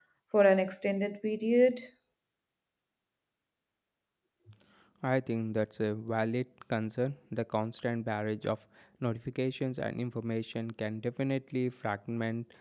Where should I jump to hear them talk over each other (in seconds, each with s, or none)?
none